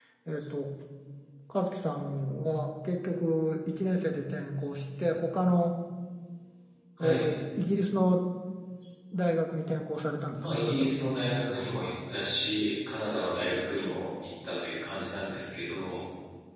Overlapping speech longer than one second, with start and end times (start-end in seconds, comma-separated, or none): 10.4-11.7